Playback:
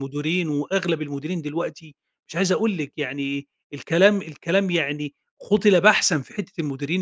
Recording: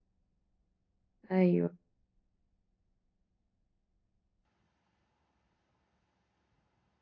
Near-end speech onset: 1.3 s

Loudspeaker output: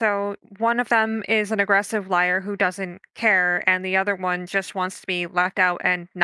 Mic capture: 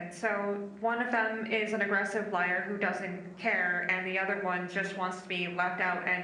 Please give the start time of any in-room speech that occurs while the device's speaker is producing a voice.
none

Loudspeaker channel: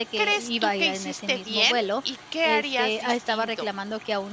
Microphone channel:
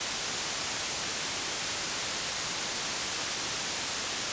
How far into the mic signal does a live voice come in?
none

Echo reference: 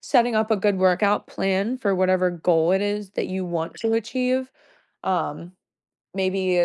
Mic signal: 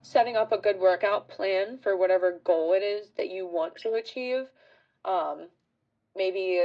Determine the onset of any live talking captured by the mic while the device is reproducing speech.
none

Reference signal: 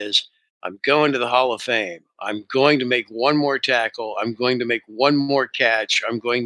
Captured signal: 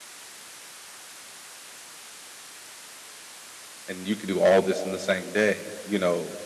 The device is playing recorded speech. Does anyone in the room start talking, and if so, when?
3.9 s

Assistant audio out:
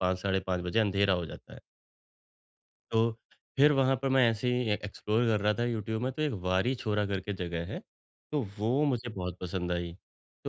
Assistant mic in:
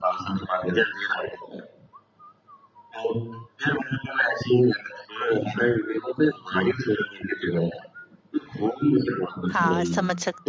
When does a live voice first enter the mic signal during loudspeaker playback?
9.5 s

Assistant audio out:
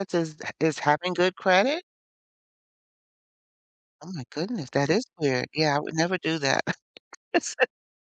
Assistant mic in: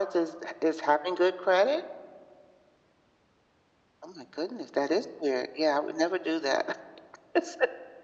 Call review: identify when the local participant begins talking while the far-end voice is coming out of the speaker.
none

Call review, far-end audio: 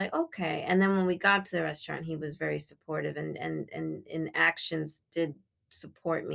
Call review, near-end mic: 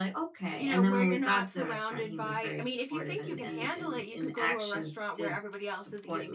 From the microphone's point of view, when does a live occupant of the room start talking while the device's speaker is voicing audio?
0.5 s

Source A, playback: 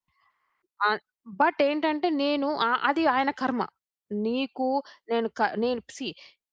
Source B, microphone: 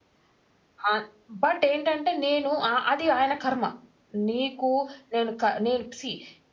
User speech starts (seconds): none

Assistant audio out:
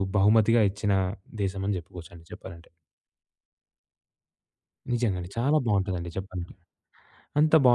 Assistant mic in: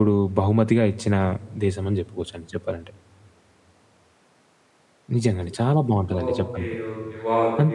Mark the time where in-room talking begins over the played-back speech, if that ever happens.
6.2 s

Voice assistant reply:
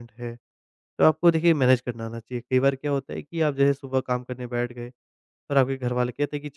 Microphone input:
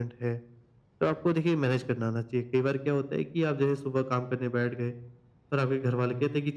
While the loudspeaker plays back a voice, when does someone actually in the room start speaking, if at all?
none

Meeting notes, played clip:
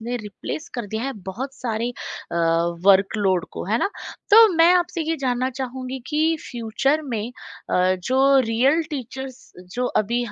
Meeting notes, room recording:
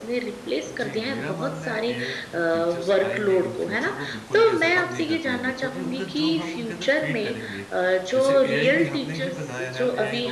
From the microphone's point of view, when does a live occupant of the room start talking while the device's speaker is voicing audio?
0.7 s

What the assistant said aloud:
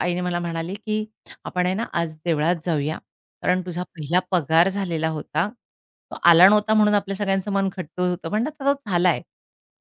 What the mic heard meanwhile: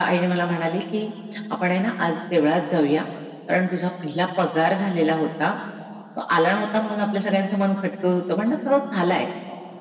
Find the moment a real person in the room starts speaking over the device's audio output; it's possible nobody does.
none

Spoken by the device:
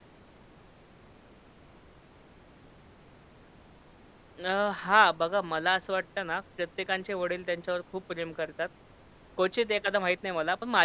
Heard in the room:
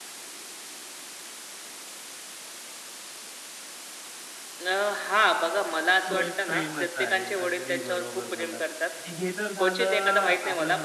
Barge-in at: 6.1 s

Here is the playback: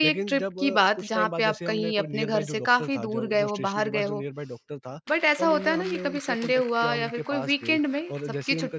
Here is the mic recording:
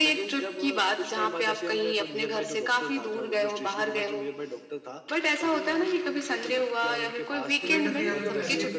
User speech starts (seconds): 7.6 s

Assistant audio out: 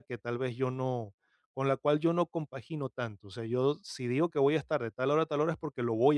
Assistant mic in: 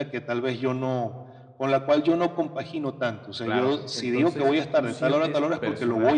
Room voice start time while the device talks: 3.4 s

